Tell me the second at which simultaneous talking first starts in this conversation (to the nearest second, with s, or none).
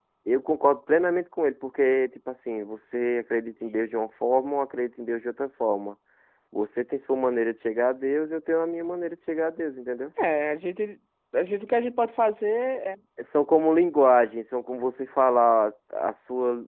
none